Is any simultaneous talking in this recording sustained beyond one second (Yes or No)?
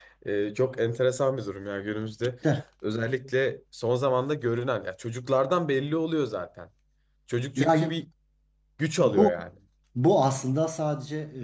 No